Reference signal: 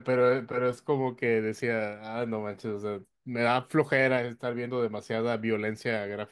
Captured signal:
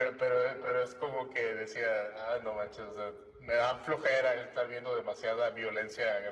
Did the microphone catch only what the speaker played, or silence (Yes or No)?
Yes